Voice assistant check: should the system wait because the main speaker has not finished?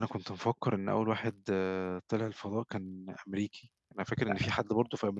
Yes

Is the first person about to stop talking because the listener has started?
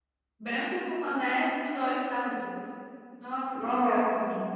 No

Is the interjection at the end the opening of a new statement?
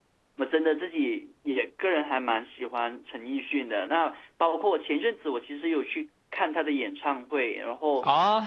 Yes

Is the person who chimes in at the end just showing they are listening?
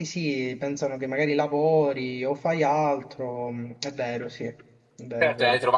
No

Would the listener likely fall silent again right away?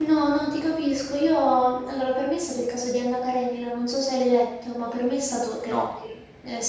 Yes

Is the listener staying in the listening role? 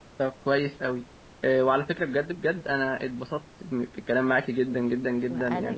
No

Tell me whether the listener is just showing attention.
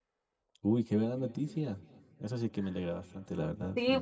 No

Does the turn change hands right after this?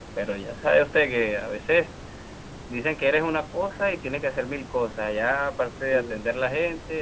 No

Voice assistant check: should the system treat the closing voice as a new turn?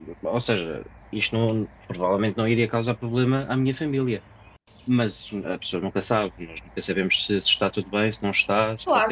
Yes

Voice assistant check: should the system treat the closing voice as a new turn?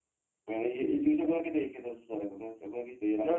Yes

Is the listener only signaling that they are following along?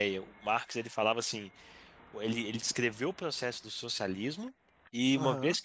No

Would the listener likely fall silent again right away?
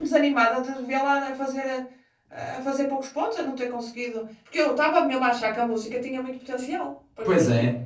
No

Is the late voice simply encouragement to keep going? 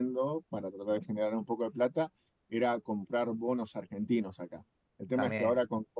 Yes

